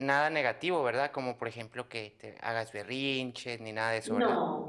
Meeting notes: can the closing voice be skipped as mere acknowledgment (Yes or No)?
No